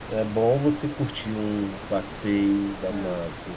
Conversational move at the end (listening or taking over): listening